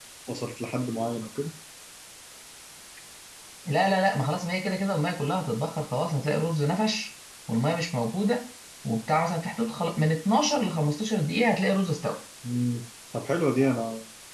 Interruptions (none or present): none